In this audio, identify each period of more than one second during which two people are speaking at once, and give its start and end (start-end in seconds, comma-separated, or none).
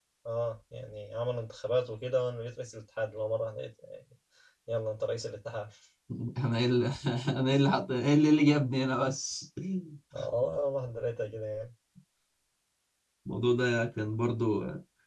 none